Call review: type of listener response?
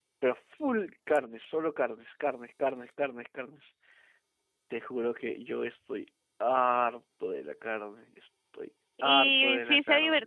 taking over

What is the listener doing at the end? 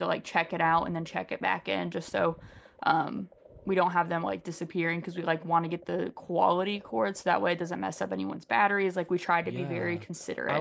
taking over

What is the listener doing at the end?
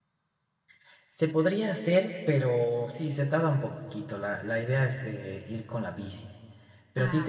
listening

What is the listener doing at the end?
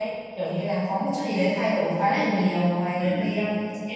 listening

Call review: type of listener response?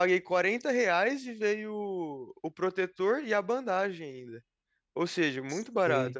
taking over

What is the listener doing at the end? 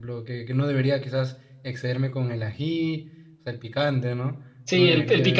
taking over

